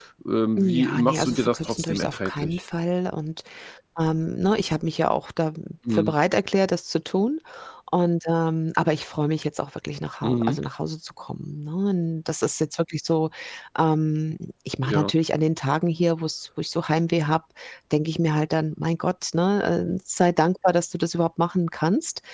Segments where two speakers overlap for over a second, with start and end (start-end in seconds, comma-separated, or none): 0.6-2.6